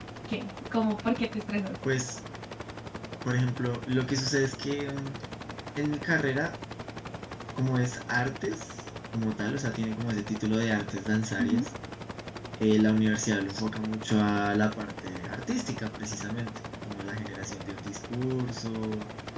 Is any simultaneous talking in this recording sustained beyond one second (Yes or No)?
No